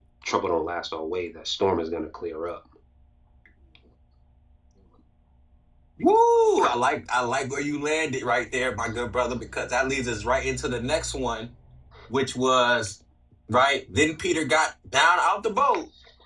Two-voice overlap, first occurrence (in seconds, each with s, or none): none